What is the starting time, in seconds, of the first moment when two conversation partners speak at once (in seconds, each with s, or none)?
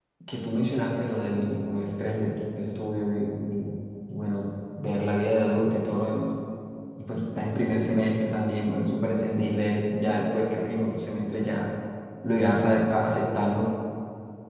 none